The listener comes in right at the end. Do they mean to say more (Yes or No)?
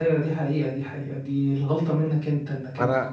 Yes